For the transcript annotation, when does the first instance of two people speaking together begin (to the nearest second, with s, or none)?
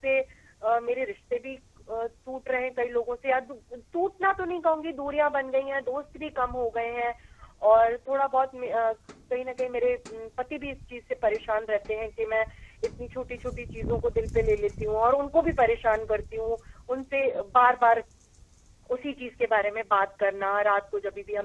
none